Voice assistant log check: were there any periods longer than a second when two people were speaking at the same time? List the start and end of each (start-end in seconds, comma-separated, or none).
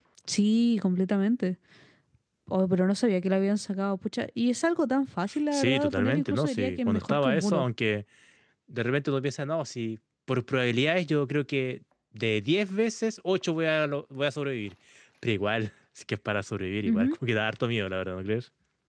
5.5-7.6